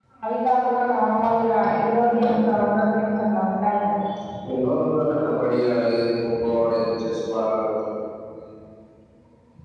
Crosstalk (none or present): none